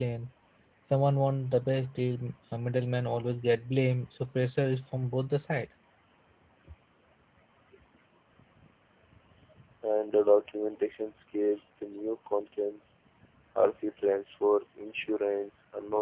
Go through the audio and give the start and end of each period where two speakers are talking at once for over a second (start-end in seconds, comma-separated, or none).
none